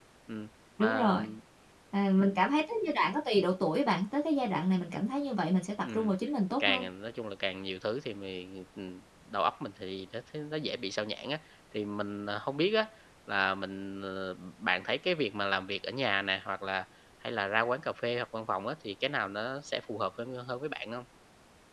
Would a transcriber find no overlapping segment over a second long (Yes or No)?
Yes